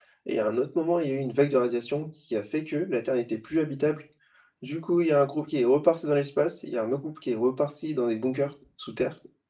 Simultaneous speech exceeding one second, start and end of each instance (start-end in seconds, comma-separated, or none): none